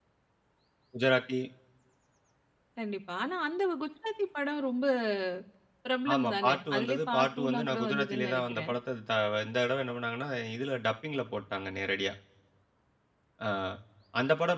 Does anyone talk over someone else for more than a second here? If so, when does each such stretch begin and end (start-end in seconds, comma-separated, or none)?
6.1-8.7